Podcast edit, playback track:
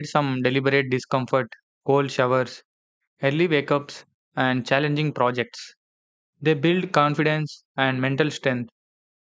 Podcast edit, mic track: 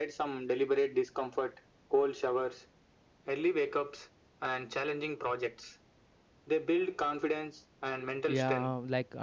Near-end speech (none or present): present